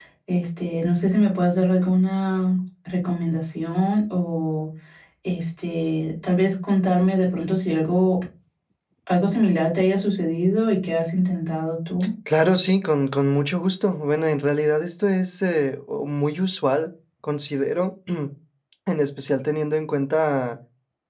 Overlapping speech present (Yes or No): No